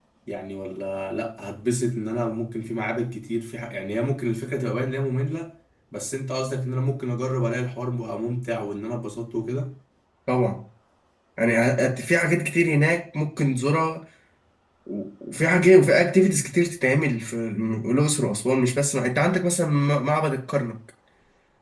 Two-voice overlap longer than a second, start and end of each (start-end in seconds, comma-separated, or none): none